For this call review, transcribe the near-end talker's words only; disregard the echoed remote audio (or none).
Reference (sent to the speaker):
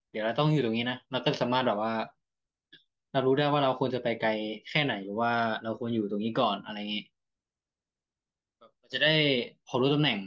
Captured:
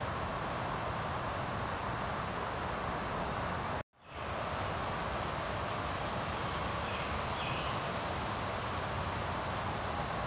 none